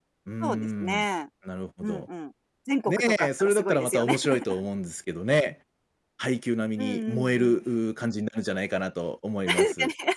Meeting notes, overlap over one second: present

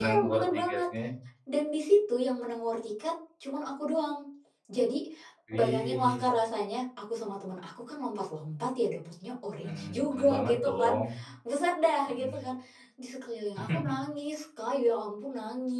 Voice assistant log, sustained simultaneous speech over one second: present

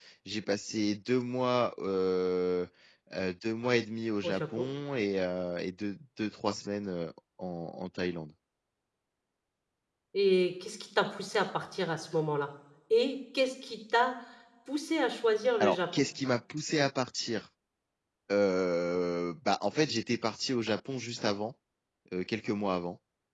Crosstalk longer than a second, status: none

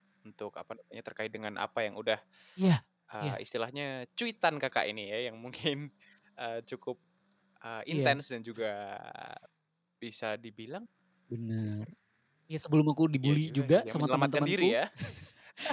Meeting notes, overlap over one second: present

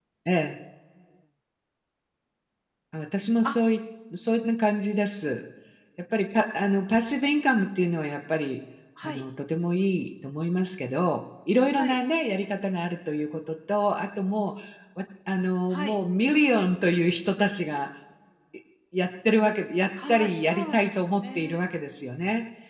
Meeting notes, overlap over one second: present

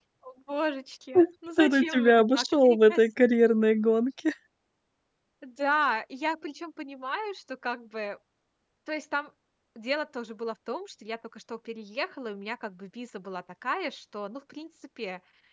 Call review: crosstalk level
present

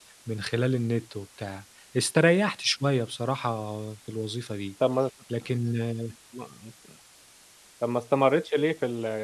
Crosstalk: none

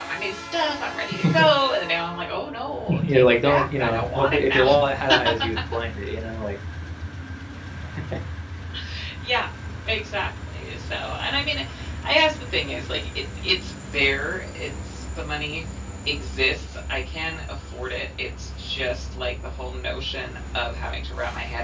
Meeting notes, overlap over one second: present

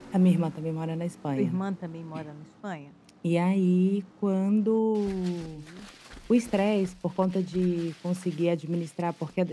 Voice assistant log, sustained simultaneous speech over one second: none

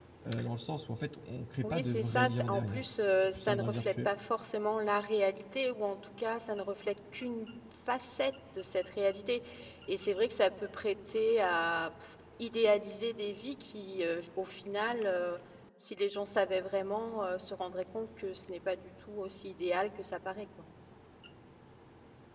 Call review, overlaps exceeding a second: present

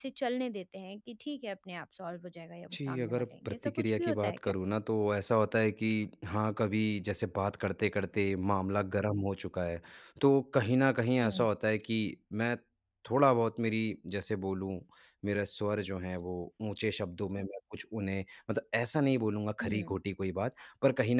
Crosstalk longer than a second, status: present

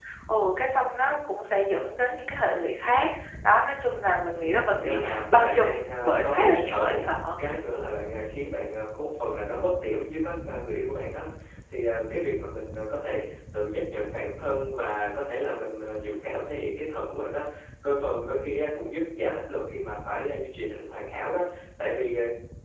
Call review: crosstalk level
present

